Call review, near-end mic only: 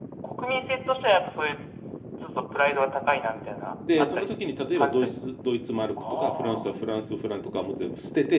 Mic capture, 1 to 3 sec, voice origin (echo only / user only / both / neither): echo only